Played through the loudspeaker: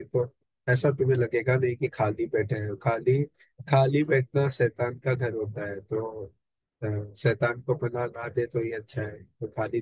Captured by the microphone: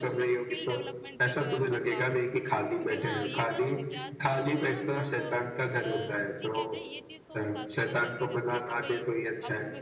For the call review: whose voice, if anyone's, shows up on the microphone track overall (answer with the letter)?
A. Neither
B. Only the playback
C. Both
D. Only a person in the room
C